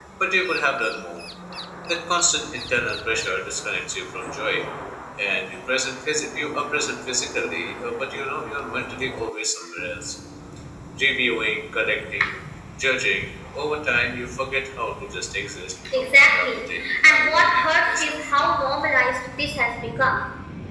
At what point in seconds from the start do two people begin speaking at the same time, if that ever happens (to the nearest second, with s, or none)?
16 s